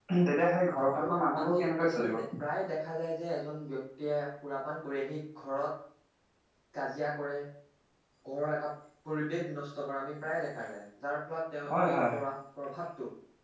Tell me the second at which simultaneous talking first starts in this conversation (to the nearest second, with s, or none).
1 s